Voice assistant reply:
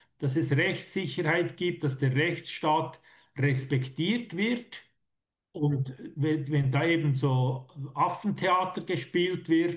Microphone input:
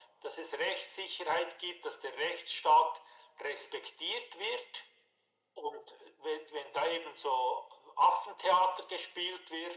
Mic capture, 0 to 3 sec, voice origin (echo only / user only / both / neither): echo only